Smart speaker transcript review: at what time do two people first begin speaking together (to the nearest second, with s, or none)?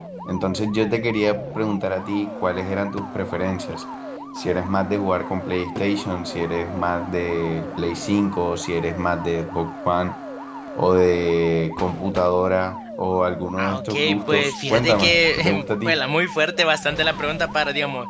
14 s